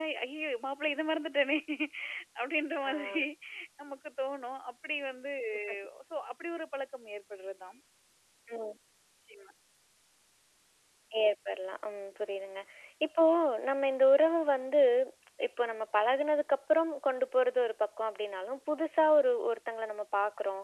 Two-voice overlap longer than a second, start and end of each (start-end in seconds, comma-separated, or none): none